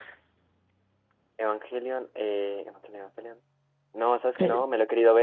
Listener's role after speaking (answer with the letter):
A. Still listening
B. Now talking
A